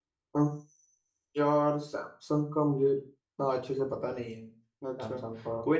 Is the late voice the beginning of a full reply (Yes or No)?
Yes